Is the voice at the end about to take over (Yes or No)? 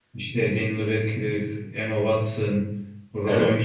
No